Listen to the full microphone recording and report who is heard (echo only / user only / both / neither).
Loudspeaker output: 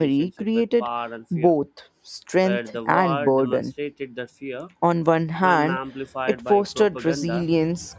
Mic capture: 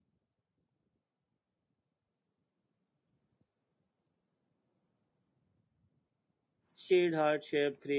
user only